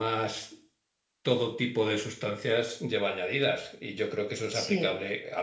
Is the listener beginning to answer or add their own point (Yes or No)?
No